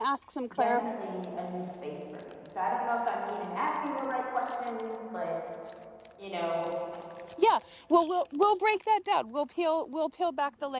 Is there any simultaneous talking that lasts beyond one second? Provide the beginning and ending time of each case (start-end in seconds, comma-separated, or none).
none